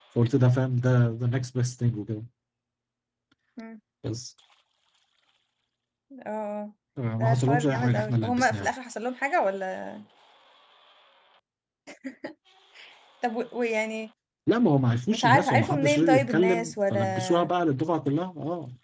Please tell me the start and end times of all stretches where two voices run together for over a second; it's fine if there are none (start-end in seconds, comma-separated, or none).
7.2-8.7, 15.1-17.5